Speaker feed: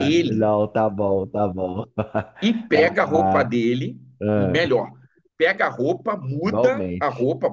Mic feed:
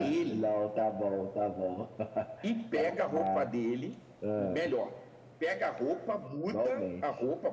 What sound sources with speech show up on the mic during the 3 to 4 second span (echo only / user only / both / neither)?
echo only